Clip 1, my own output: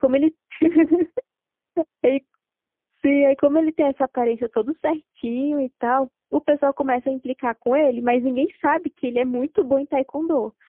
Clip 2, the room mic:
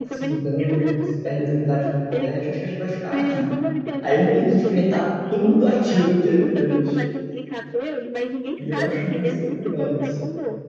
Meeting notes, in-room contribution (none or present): present